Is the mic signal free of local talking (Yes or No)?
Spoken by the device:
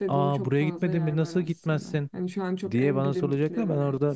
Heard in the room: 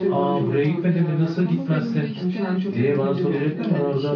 No